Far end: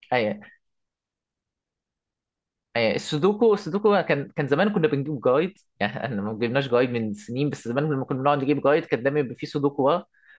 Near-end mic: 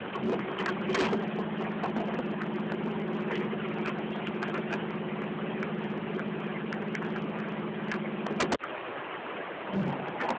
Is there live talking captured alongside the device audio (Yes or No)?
No